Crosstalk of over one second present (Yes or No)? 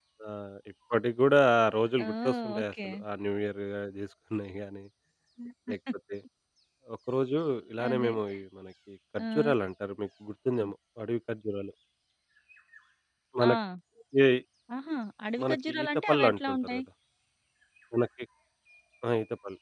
Yes